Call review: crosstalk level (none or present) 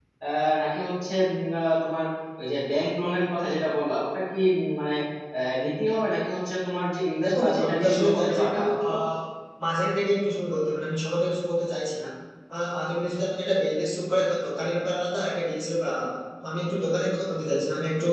present